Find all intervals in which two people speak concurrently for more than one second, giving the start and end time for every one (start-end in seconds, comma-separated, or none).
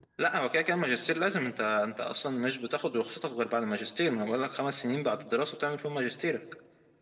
none